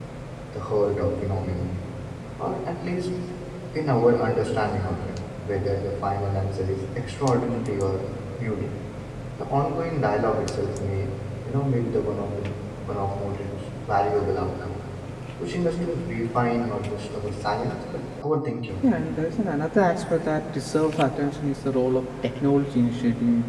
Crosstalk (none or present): none